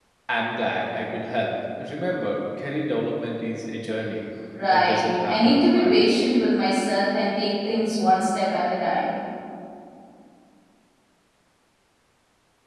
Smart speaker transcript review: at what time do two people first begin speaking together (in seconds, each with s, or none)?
4.7 s